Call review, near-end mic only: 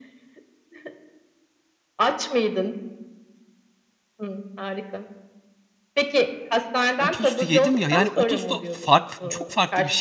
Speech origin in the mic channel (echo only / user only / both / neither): both